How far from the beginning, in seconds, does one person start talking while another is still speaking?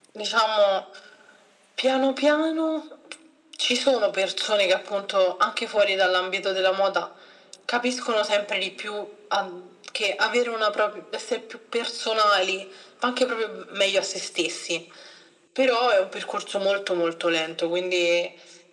none

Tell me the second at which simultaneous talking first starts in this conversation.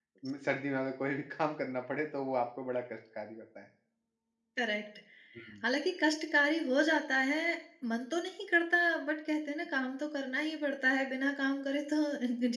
none

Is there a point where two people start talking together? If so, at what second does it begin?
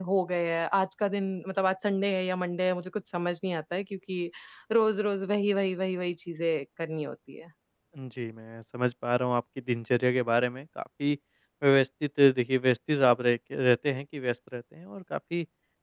none

